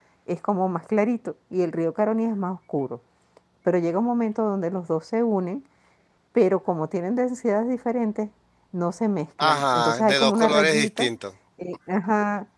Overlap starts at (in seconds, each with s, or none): 9.4 s